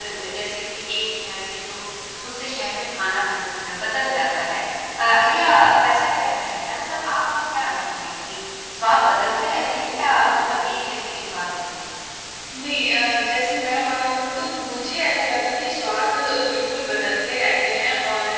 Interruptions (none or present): none